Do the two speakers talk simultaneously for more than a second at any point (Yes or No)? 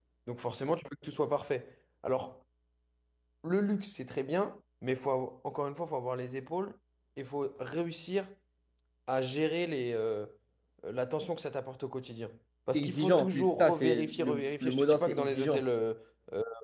Yes